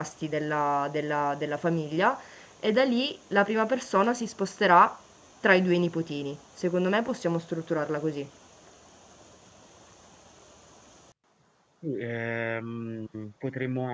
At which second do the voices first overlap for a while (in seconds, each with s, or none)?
none